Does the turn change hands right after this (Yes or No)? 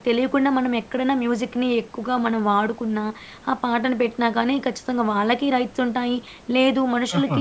No